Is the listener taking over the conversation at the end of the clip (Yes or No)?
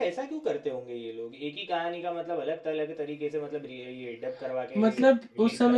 Yes